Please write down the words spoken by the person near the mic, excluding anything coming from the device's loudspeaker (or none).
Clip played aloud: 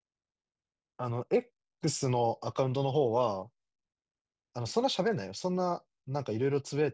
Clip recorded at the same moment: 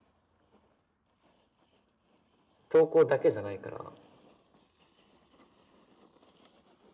投稿だけじゃないから、